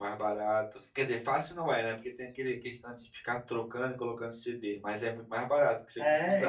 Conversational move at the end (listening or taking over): taking over